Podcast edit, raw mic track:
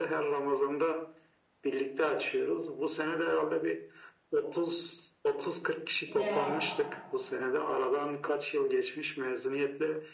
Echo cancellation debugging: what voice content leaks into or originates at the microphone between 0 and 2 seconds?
echo only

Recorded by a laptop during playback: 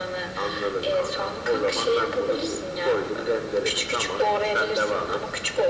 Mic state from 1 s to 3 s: echo only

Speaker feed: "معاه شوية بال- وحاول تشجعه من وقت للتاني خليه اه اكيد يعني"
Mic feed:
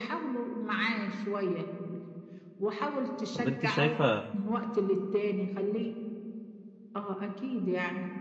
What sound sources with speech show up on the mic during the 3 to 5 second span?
both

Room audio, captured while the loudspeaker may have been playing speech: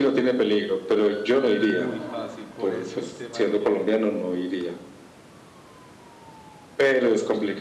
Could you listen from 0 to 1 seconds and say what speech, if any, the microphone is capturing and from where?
echo only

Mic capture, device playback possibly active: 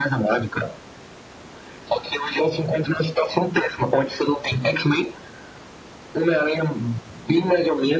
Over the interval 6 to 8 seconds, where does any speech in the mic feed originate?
echo only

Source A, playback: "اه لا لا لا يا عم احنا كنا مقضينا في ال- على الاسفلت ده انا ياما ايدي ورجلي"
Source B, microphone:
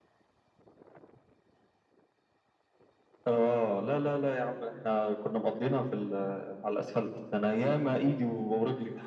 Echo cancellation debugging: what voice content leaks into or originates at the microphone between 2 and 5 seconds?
echo only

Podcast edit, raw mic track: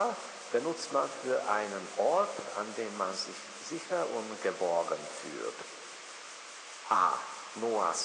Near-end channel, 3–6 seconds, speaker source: echo only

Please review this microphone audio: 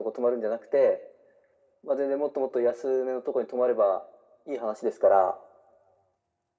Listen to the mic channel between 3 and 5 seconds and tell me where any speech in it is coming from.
echo only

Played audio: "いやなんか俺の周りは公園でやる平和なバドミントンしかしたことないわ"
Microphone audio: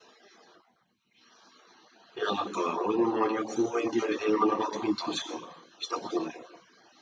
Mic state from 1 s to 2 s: neither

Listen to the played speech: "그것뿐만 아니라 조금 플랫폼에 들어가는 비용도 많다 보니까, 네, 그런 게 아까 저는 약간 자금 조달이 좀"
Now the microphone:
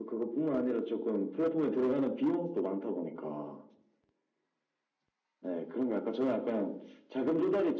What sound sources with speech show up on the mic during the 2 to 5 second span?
echo only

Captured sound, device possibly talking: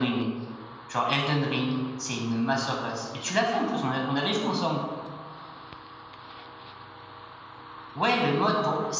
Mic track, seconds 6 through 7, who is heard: neither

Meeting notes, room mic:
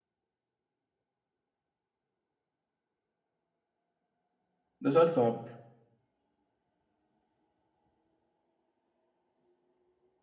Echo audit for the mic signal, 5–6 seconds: user only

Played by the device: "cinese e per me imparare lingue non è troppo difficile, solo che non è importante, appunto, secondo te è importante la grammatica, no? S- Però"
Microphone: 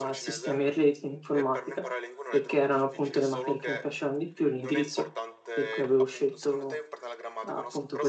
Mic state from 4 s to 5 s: both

